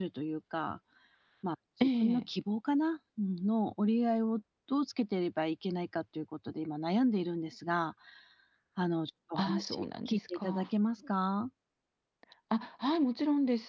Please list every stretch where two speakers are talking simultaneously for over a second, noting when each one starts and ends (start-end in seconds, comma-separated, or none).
9.4-10.7